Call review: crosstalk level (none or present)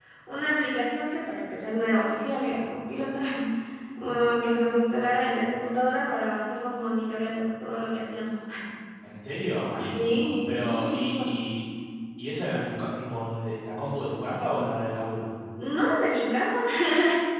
present